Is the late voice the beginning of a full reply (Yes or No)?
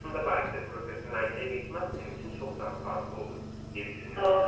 Yes